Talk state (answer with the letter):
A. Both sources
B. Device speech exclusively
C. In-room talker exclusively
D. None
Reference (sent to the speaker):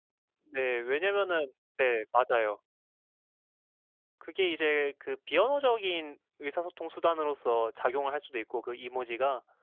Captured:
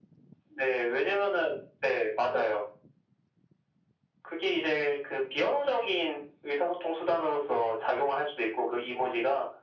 B